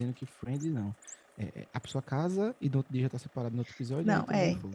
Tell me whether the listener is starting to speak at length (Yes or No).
Yes